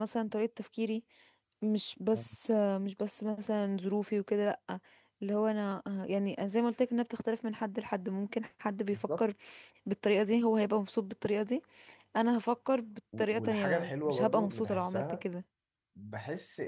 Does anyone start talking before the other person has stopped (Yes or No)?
Yes